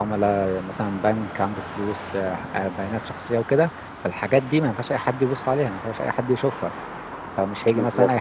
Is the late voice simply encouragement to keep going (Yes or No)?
Yes